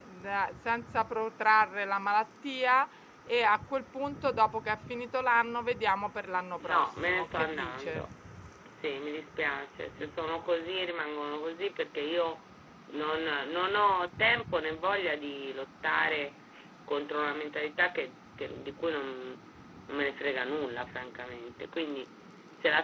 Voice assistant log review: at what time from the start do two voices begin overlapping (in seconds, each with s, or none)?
6.6 s